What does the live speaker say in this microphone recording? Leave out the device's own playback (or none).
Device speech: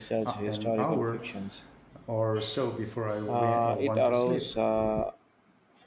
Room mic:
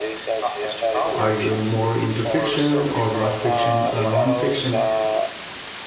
Are you more into fiction or not fiction or non-fiction